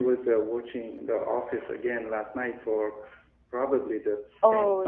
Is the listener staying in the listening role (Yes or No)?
No